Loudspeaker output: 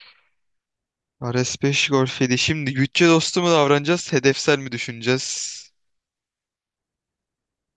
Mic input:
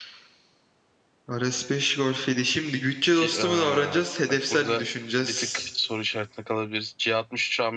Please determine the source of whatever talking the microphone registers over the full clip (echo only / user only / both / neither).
both